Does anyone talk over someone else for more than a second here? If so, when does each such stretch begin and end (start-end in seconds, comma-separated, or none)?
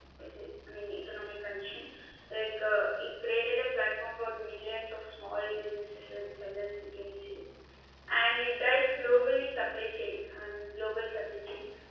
none